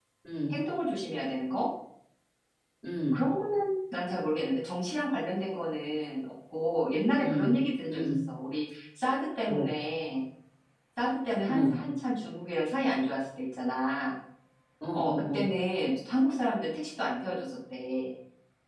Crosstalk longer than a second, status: none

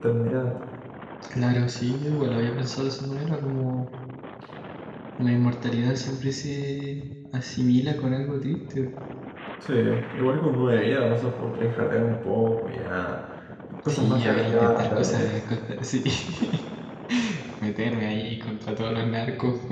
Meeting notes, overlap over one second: present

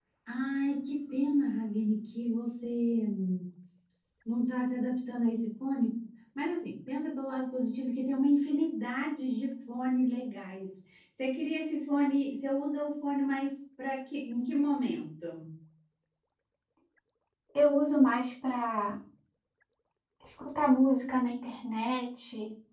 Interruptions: none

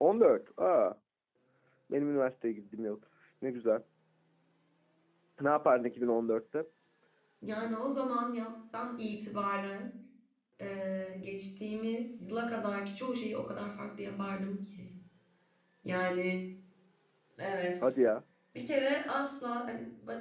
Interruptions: none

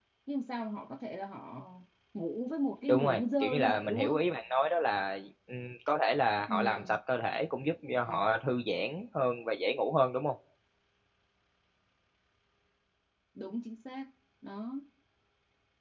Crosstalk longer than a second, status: present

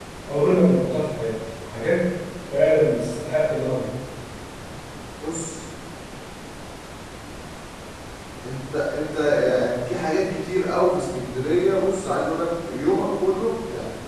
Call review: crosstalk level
none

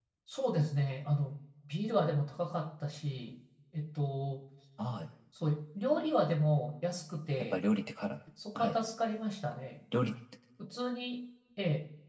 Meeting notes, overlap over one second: none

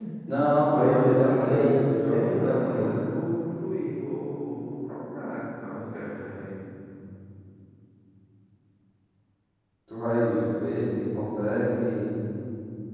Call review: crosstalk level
present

